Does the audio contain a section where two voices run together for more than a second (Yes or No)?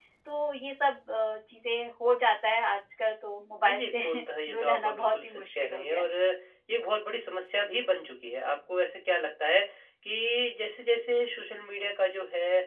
Yes